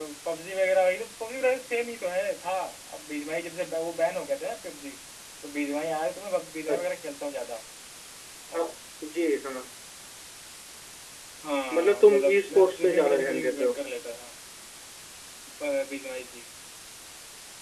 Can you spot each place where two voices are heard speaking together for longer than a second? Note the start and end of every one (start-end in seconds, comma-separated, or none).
11.8-13.7